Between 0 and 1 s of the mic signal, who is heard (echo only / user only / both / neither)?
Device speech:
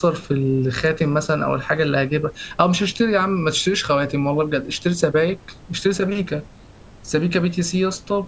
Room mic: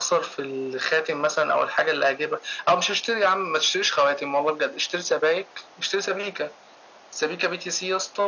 echo only